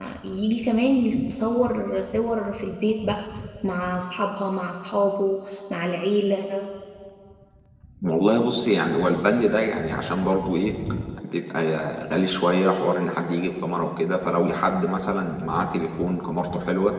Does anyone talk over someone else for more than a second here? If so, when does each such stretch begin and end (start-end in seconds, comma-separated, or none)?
none